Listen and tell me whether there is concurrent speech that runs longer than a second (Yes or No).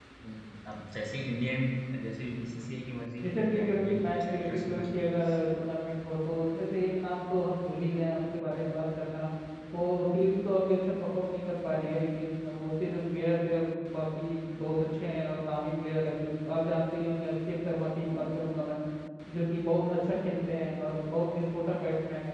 Yes